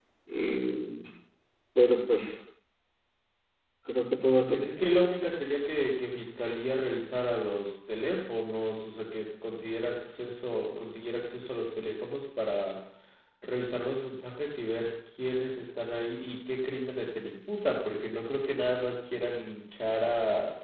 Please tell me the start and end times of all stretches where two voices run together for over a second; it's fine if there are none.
none

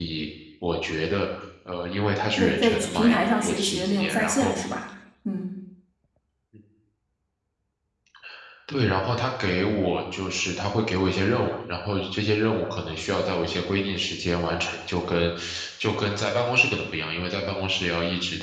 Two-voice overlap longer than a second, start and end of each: 2.4-4.5

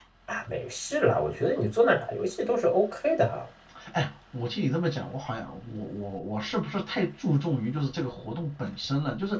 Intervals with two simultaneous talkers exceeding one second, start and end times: none

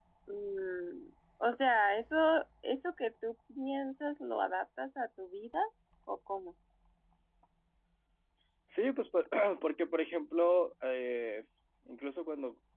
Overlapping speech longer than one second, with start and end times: none

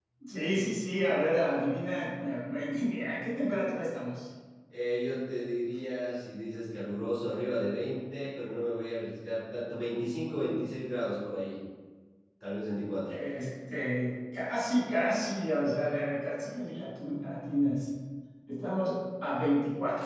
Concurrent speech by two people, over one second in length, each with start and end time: none

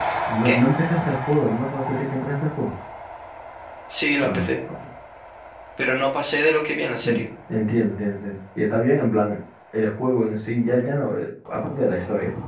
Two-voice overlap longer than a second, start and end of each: none

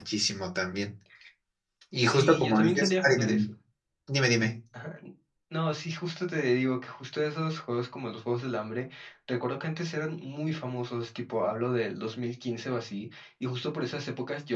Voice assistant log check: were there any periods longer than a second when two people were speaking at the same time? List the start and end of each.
2.0-3.5

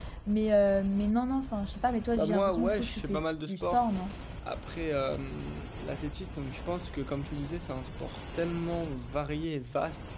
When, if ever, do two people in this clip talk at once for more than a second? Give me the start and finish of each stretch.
2.1-3.8

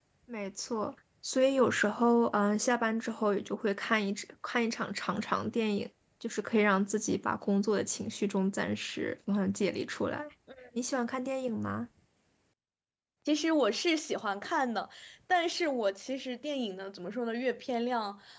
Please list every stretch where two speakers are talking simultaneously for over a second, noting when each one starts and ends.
none

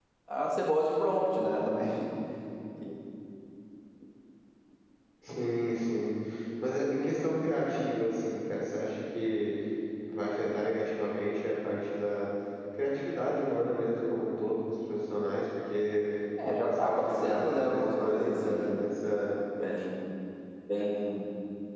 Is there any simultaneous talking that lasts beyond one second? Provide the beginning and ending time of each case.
16.4-18.8

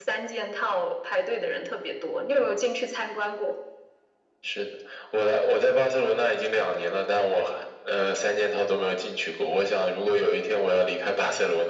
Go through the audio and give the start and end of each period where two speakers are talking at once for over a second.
none

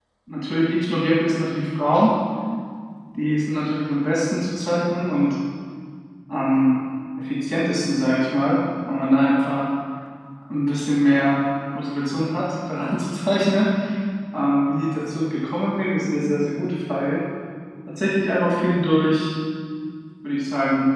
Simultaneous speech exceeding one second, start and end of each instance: none

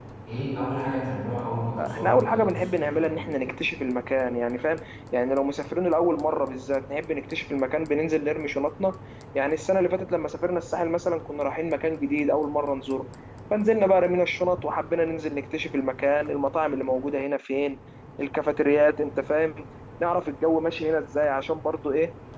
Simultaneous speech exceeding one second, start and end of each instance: 1.8-3.3

